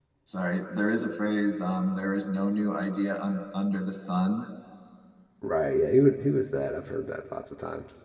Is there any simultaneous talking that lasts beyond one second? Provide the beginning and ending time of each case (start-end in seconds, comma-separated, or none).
none